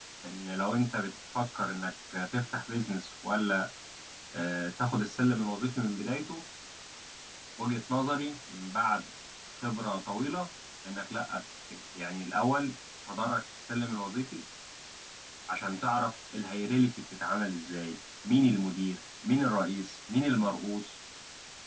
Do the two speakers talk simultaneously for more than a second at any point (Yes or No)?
No